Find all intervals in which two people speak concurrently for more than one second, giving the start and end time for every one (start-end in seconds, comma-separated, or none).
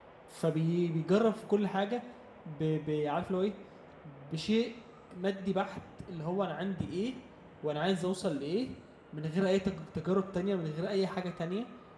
none